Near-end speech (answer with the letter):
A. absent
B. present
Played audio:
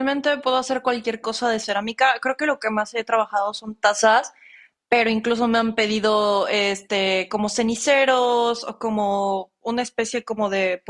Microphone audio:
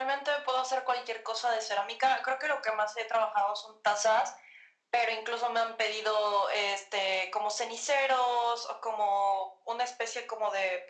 A